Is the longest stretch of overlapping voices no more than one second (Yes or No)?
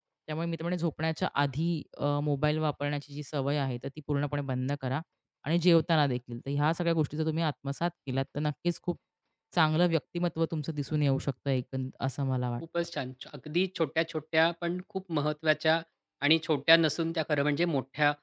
Yes